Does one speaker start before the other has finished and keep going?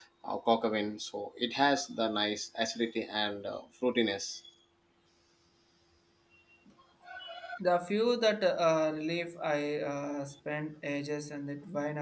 No

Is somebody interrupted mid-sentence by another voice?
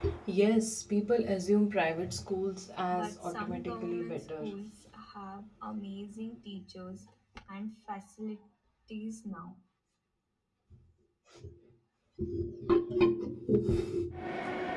Yes, from 2.9 s

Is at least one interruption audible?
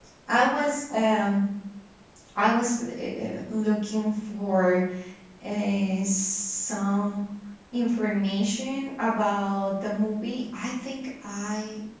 No

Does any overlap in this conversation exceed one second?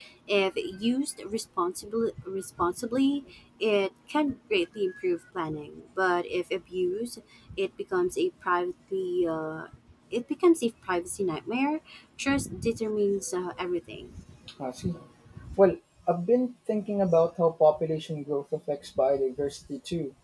No

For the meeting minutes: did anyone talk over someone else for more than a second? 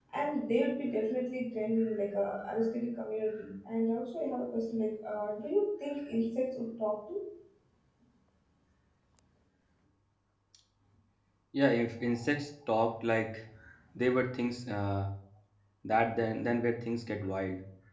No

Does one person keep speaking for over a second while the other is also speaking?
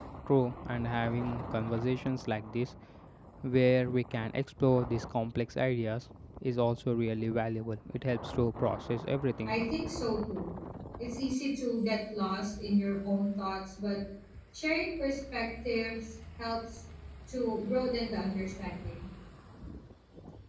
No

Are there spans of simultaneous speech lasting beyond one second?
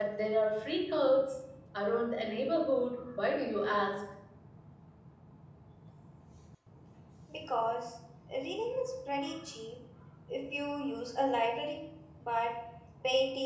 No

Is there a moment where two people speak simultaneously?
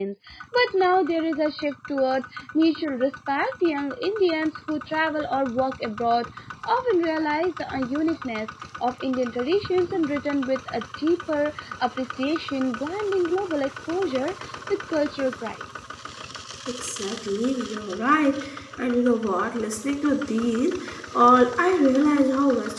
No

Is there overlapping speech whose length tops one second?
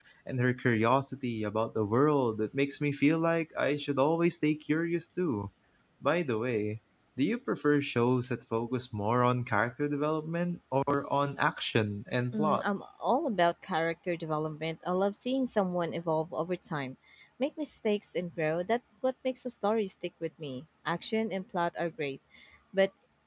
No

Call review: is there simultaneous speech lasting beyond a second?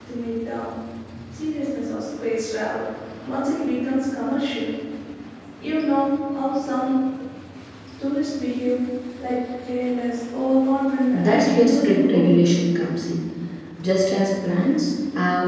Yes, from 11.1 s

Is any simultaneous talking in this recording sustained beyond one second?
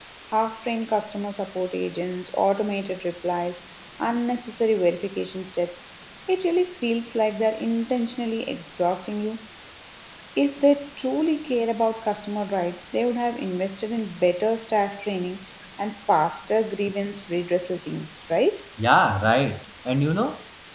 No

